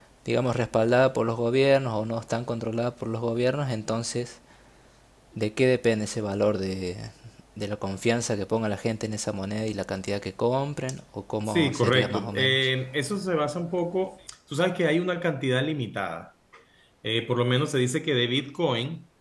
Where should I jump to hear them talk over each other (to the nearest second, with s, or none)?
11 s